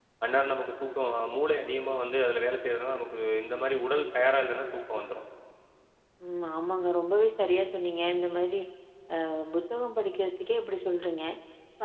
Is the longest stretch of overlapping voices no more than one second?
Yes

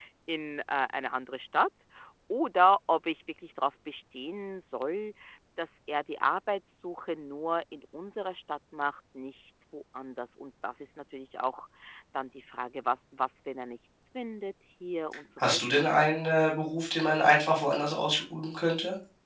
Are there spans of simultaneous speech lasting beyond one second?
No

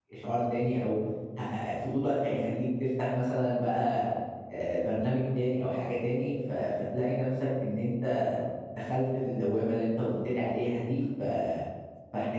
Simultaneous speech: No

